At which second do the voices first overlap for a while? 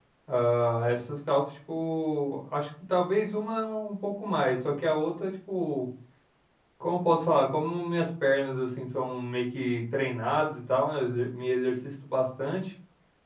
none

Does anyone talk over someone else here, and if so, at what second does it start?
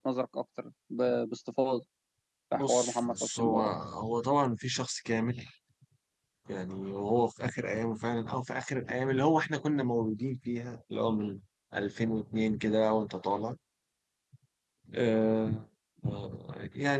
2.5 s

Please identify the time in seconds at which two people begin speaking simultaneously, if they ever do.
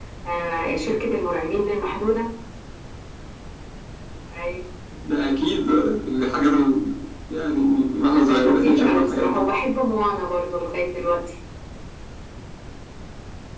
8.3 s

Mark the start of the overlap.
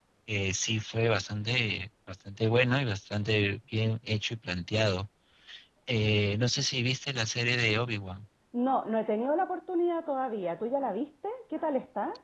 none

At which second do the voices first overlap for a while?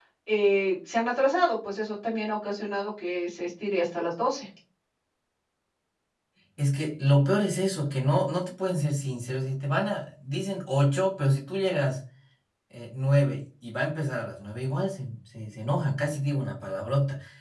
none

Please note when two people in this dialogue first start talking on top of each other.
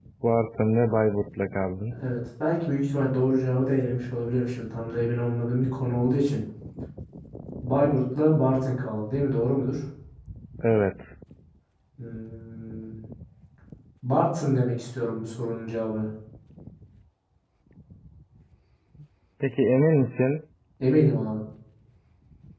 none

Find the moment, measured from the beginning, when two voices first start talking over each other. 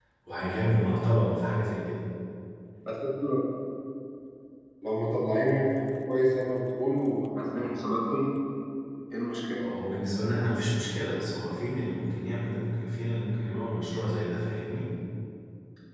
none

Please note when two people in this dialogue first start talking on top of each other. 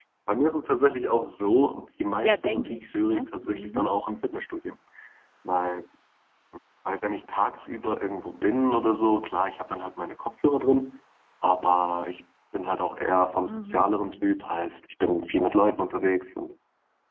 2.2 s

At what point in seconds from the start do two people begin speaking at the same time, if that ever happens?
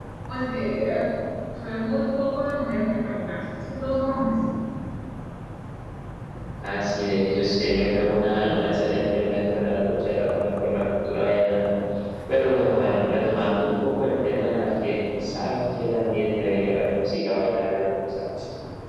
none

